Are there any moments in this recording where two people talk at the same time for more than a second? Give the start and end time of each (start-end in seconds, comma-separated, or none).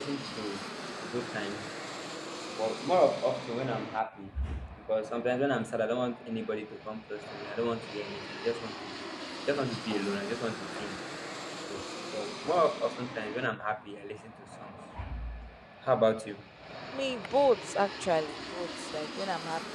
none